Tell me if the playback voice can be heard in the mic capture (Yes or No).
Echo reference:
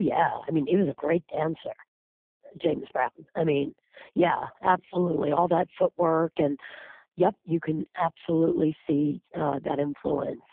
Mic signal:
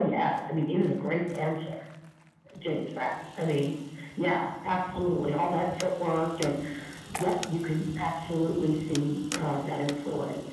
Yes